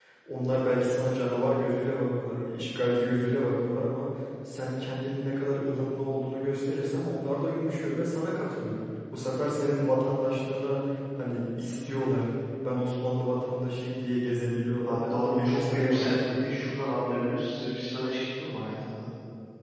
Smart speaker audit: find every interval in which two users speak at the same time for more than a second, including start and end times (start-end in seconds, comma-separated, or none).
14.8-16.5